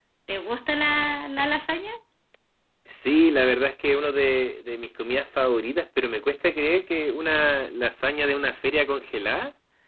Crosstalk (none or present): none